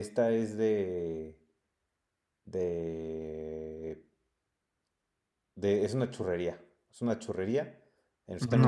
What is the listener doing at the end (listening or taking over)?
listening